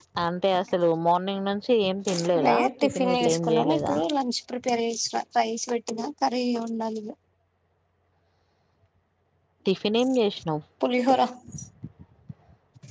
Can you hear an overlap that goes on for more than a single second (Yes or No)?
Yes